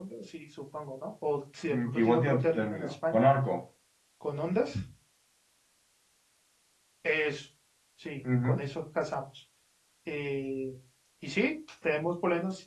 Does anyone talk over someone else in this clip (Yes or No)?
Yes